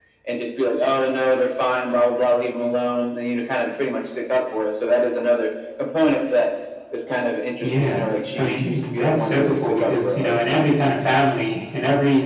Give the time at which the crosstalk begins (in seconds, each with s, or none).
7.6 s